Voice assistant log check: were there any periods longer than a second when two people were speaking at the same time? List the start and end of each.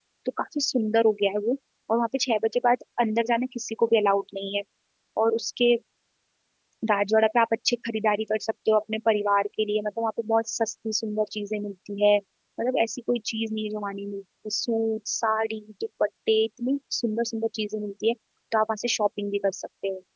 none

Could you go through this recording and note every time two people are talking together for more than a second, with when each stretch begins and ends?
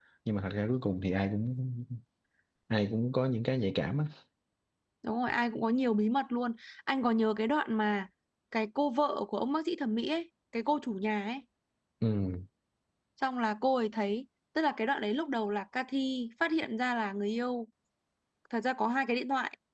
none

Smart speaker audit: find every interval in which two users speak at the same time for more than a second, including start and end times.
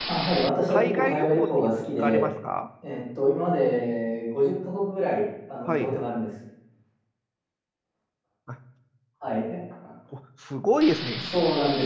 0.7-2.3

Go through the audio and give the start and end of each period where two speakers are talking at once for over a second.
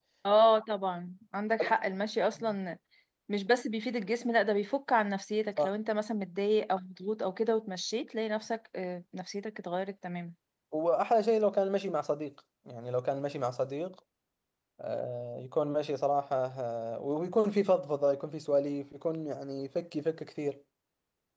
none

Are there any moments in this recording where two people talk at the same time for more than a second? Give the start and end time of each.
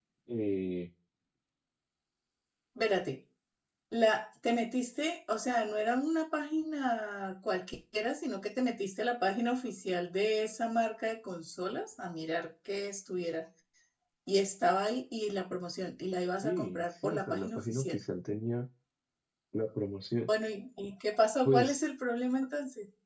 16.4-18.0

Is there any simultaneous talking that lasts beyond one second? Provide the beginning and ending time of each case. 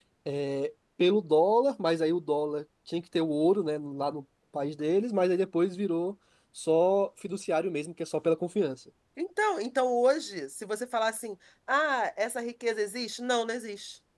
none

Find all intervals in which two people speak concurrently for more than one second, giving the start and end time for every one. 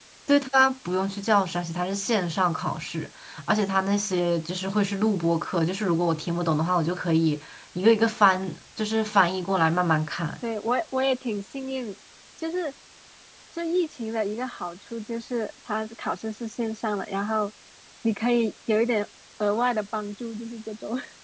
none

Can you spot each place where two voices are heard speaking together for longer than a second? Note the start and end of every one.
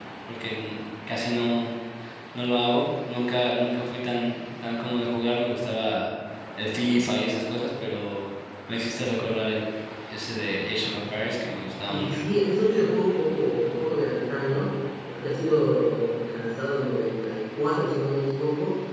none

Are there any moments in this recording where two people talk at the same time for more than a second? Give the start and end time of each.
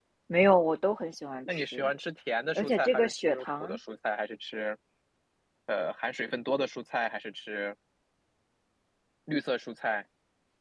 2.6-3.8

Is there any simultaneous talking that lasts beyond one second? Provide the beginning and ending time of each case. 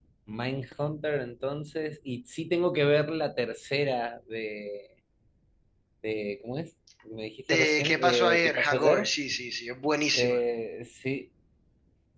7.5-9.1

